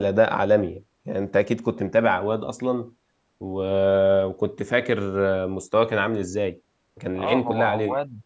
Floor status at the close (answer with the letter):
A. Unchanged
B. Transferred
B